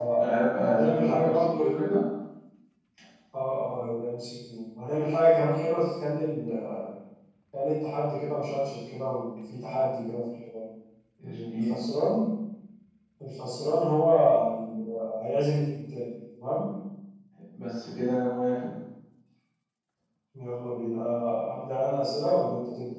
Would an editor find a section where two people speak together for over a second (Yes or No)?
Yes